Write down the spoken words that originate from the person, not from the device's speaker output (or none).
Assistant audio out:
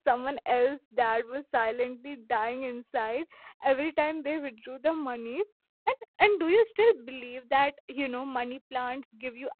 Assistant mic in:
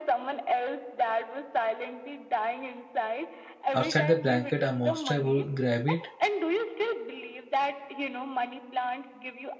outside the blanket, a monster would grab it.